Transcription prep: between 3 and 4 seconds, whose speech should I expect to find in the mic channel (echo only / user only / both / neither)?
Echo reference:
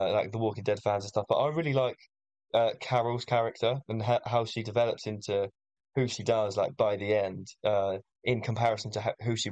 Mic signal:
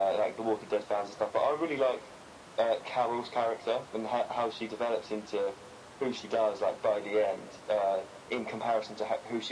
echo only